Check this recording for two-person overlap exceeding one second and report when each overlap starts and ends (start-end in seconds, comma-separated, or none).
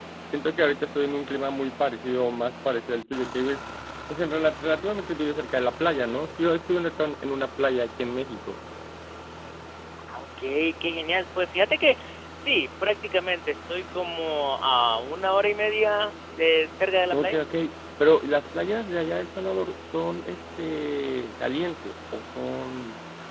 none